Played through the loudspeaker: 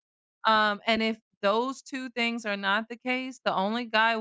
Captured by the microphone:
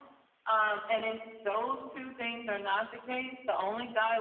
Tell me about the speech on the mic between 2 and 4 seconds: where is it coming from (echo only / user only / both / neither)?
echo only